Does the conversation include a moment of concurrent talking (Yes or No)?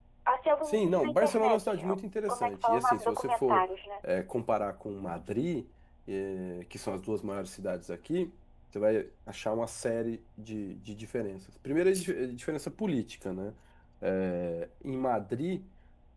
Yes